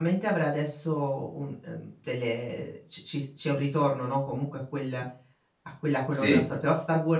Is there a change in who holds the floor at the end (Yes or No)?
No